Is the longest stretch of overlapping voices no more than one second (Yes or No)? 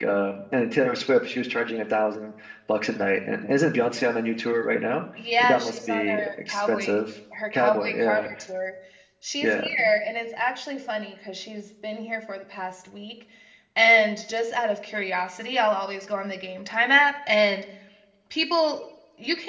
No